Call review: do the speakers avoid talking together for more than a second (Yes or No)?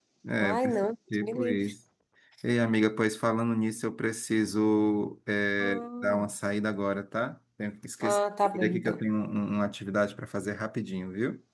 No